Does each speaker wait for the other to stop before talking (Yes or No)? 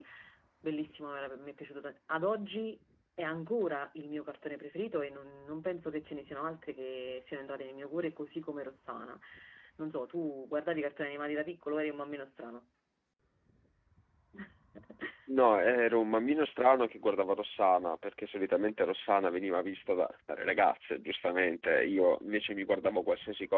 Yes